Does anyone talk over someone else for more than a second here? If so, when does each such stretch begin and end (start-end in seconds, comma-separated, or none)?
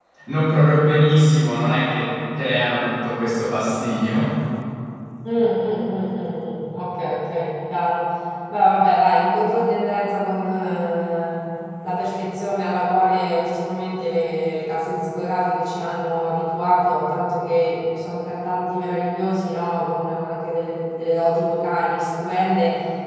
none